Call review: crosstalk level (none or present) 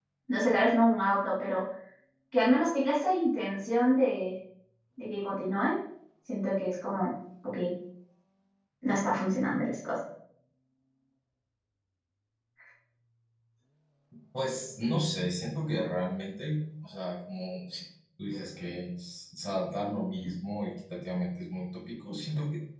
none